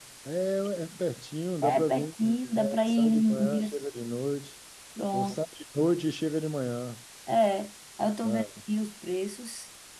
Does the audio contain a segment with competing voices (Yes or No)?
Yes